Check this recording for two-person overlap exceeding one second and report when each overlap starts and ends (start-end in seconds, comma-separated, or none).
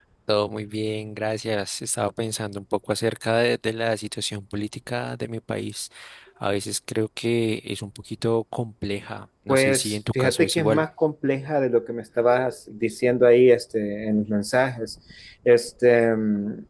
9.5-10.8